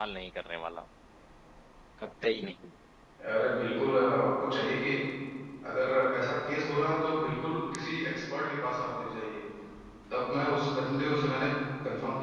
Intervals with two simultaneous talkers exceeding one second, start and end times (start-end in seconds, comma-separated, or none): none